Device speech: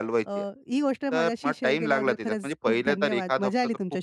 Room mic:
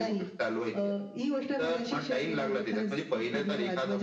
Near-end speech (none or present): none